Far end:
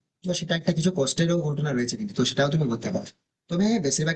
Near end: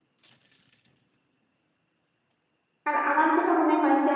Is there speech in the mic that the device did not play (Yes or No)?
Yes